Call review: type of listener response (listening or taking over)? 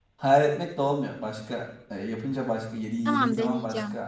listening